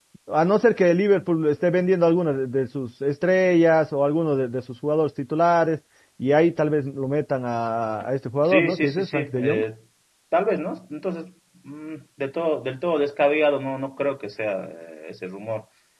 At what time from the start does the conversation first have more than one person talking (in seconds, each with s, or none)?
8.4 s